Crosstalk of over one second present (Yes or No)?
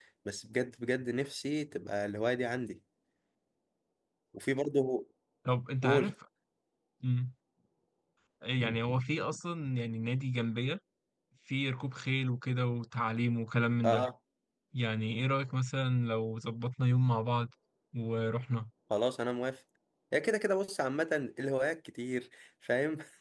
No